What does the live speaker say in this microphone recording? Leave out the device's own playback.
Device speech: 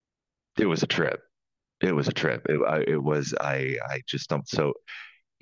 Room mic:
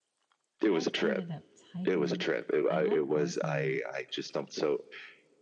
I've ended up typing. I like voice mode,

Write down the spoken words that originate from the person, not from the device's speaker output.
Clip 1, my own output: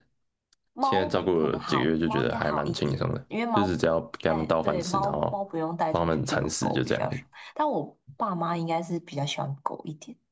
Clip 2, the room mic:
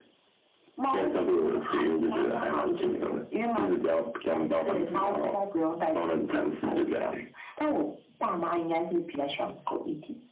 none

